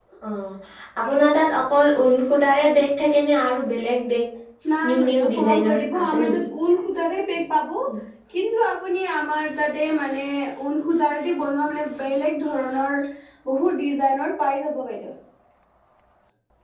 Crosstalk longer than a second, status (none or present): present